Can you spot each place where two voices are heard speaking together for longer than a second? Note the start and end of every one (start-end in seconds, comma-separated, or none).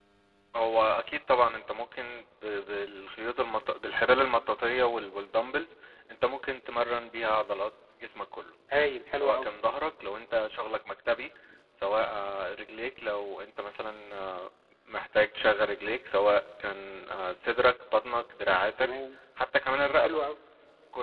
none